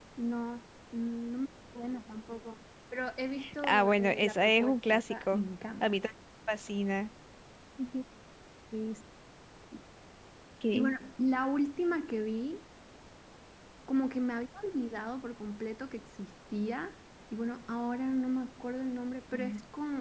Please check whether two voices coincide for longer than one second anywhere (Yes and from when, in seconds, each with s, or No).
Yes, from 3.4 s